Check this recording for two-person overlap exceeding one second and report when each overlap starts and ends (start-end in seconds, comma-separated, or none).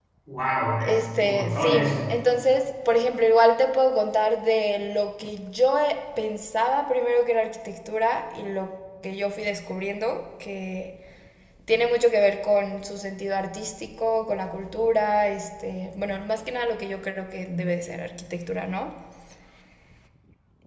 0.8-2.1